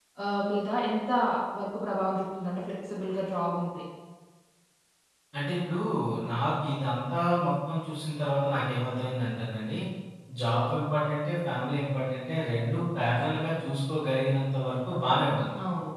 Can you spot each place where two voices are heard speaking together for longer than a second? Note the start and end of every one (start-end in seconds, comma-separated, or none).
none